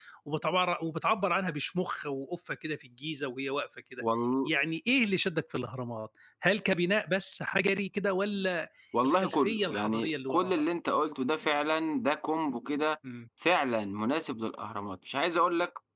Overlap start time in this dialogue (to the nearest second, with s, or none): 9 s